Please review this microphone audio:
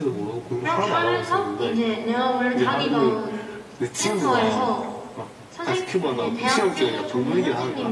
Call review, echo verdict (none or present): present